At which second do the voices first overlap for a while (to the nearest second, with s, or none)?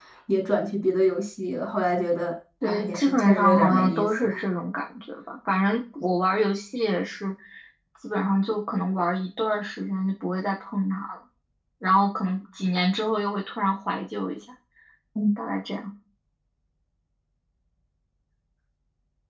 3 s